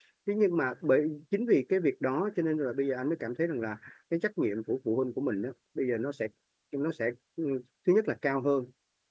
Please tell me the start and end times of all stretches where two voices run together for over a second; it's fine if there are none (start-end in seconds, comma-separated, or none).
none